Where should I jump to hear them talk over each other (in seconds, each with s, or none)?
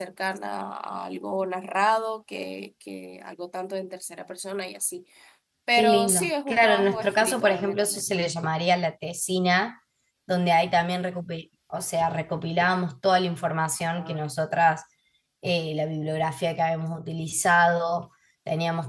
5.7 s